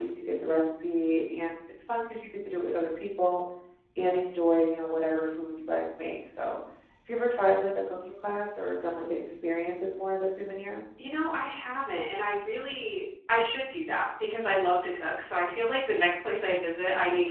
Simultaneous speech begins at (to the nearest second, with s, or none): none